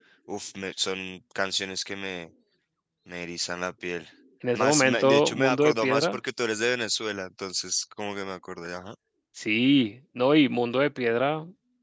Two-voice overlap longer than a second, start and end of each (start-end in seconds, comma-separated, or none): 4.5-6.2